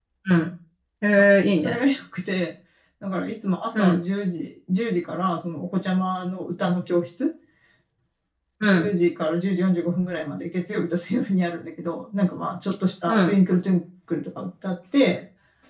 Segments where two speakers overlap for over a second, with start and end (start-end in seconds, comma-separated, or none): none